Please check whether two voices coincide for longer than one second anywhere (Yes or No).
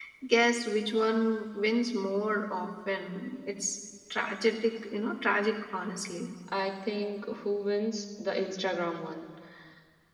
No